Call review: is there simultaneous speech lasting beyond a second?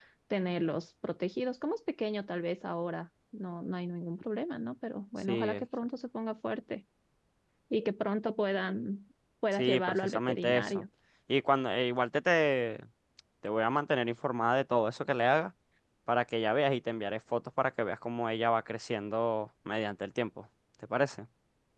Yes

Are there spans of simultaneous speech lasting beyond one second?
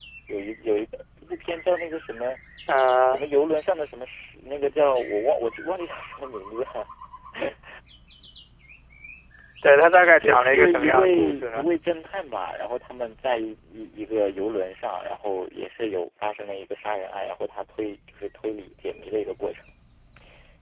Yes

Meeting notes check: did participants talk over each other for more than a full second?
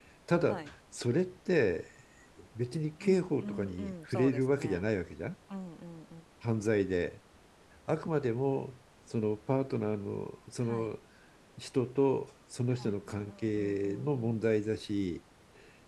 Yes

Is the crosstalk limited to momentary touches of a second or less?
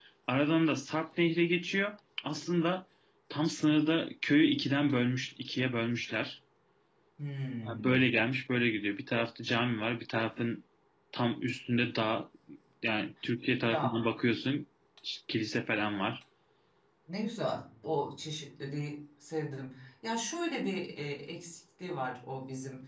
Yes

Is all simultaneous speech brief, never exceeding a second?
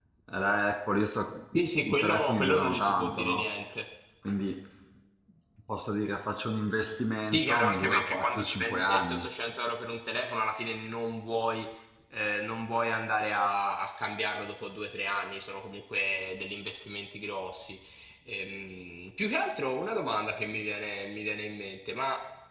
No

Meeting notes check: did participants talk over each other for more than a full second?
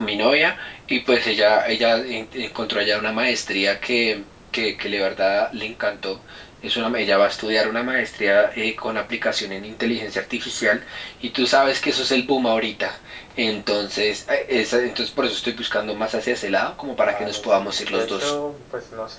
Yes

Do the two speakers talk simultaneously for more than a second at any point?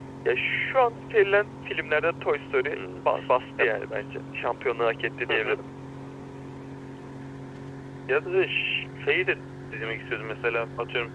No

